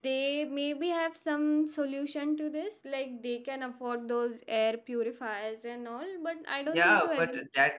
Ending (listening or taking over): taking over